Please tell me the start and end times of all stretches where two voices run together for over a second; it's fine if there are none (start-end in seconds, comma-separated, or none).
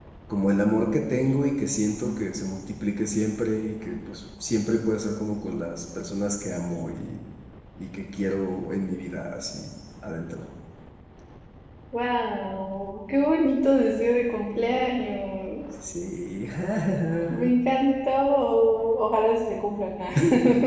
none